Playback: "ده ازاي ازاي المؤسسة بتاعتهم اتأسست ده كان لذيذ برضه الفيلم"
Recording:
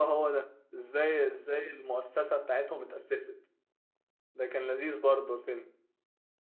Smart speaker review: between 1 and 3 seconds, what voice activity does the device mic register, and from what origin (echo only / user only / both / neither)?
echo only